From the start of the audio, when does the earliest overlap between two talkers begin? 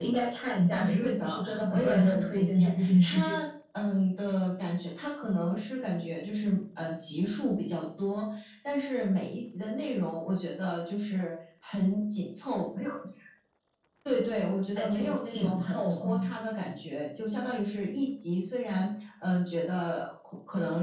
0.7 s

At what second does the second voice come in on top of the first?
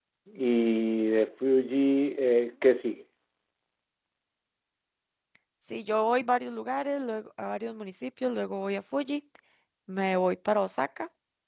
none

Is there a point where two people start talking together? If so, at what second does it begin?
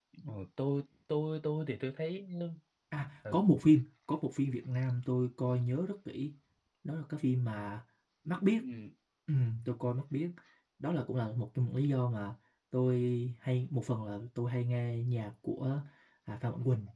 none

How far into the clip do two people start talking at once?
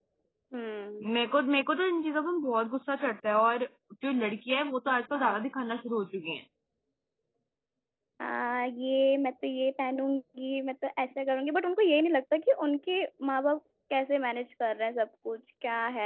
none

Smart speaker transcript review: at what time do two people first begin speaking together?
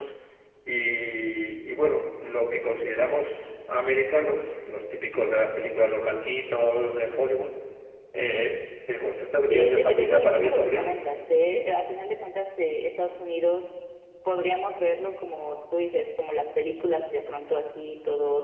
9.5 s

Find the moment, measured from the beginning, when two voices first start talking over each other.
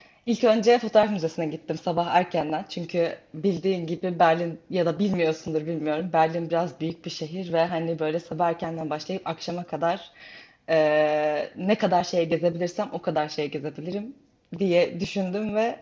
none

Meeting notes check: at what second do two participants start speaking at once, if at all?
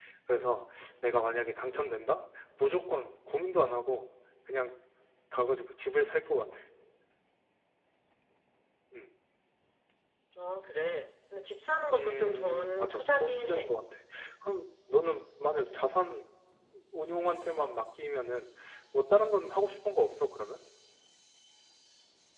11.9 s

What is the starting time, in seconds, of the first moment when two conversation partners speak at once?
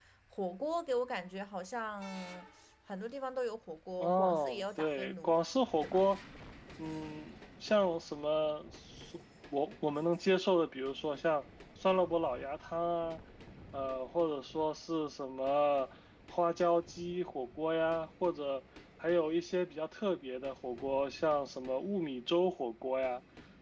4.0 s

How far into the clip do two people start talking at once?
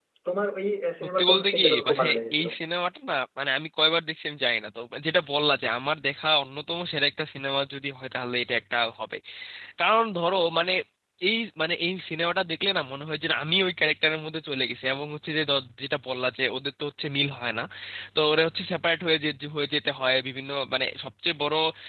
1.2 s

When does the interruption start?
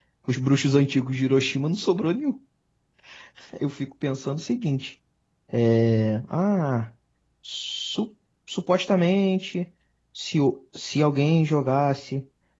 none

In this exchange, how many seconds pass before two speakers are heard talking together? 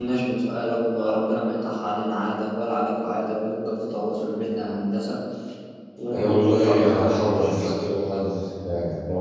6.1 s

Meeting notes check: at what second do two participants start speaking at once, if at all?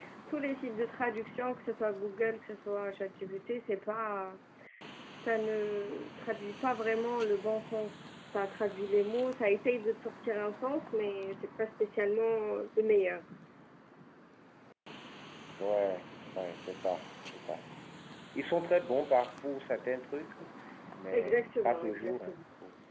21.1 s

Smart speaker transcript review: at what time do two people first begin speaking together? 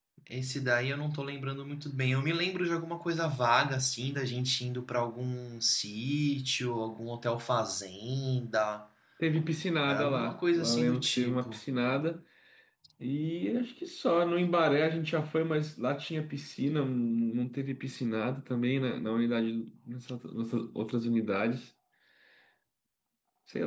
9.9 s

